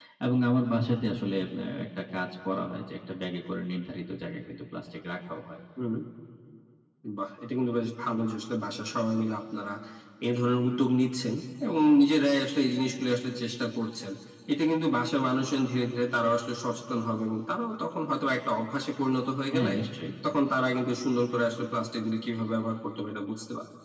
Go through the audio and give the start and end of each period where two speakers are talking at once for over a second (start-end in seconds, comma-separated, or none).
none